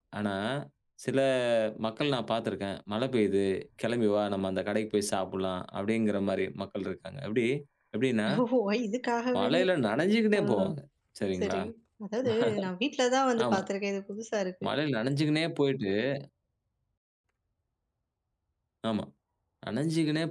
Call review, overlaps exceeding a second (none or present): none